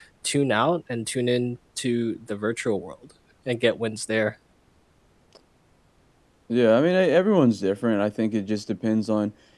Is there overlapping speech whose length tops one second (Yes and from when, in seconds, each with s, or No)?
No